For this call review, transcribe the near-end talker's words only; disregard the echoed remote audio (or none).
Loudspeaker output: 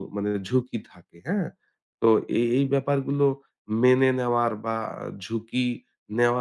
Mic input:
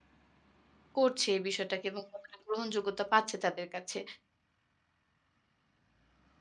করছে এই বিষয়টাকে এবং কতটা গ্রহণযোগ্যতা পাচ্ছে তাদের কাছে।